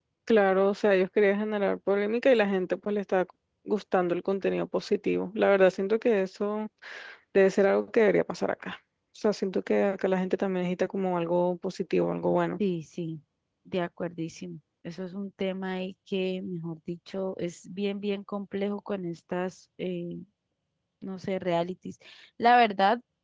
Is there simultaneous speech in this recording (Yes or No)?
No